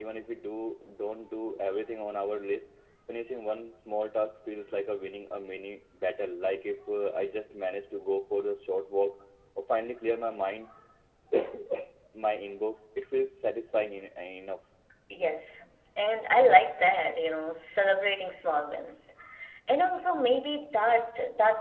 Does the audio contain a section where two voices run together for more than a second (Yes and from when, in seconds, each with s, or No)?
No